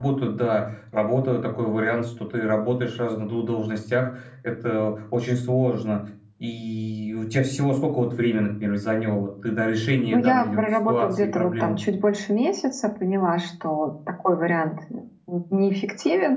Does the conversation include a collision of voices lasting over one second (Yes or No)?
Yes